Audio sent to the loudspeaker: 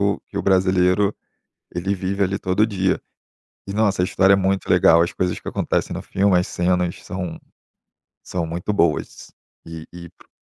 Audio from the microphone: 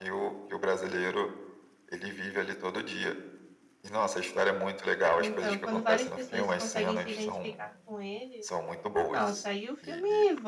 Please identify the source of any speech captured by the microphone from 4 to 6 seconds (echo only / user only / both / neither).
both